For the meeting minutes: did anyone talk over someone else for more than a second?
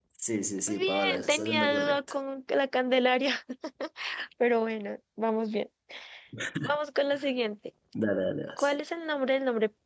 Yes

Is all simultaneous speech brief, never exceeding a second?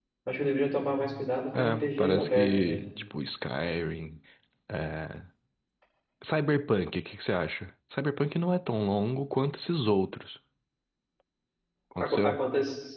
No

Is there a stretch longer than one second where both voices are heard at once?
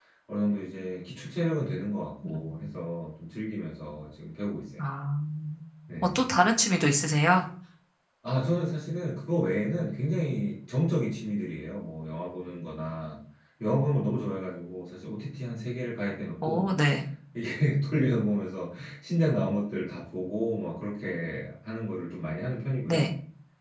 No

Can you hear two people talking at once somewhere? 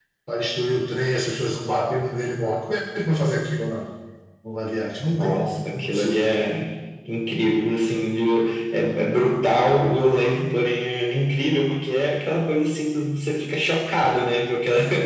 Yes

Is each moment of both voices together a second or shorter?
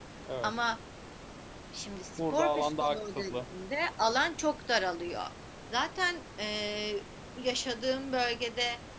No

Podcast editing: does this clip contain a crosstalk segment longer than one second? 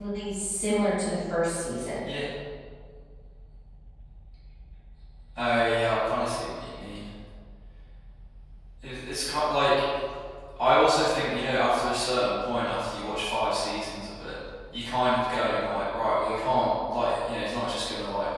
No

